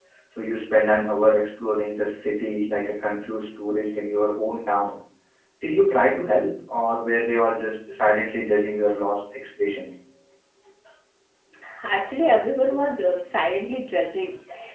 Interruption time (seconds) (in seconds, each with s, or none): none